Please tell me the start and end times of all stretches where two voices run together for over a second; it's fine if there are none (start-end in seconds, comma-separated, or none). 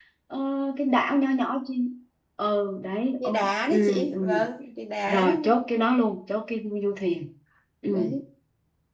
3.2-4.4